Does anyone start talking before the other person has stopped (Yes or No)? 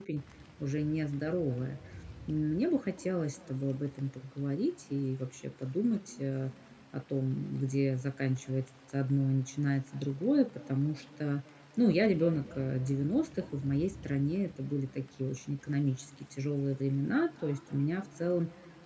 No